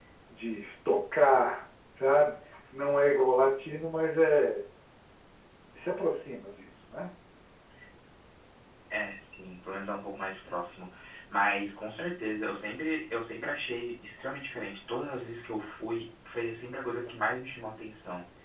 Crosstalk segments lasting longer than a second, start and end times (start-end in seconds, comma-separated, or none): none